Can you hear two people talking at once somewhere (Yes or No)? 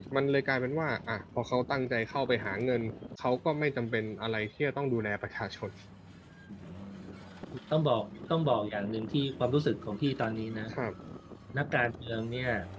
No